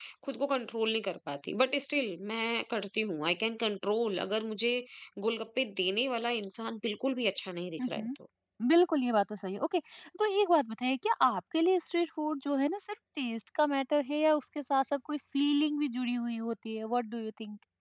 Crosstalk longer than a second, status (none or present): none